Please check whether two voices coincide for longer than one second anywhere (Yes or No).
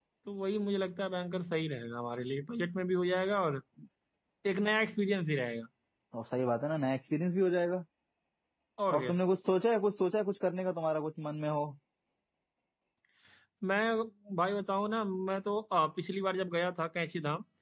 No